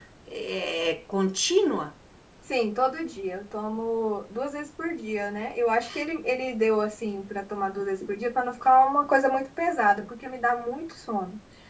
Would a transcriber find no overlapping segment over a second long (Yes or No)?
Yes